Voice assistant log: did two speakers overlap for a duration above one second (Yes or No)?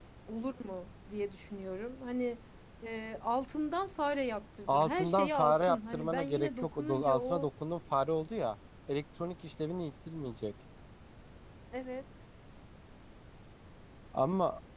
Yes